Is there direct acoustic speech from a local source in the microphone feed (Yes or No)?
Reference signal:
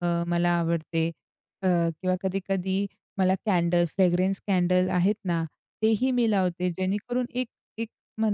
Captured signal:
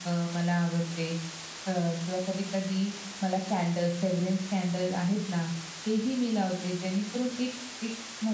No